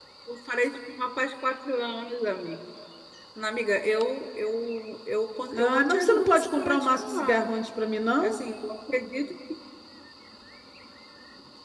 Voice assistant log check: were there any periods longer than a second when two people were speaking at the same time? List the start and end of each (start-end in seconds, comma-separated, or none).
5.5-7.4